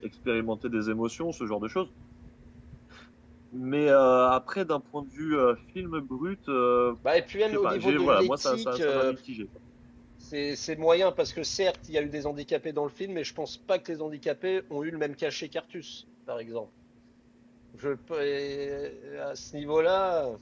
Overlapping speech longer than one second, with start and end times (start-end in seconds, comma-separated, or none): 7.4-9.1